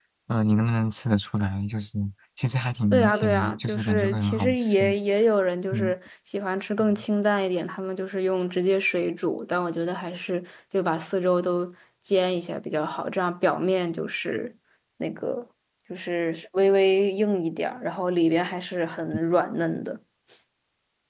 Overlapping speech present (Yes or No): Yes